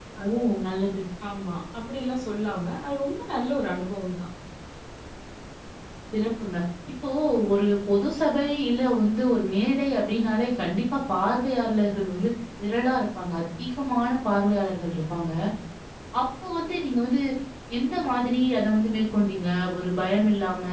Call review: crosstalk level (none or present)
none